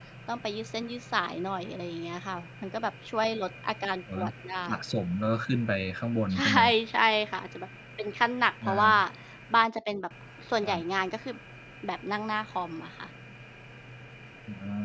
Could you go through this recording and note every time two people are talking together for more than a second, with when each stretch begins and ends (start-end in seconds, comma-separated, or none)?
none